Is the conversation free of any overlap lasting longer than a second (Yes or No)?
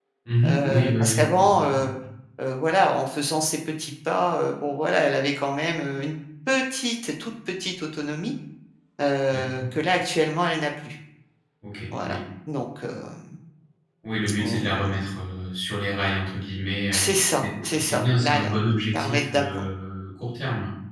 No